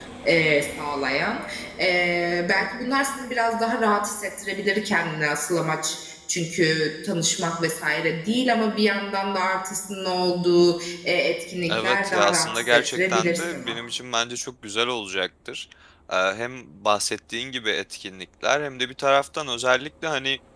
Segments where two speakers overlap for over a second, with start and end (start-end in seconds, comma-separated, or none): 11.7-13.8